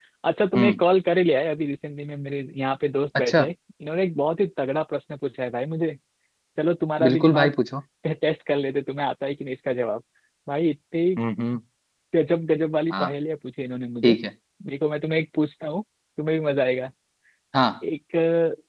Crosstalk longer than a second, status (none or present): none